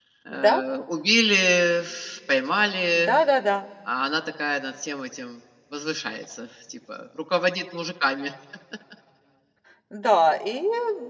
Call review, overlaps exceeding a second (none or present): none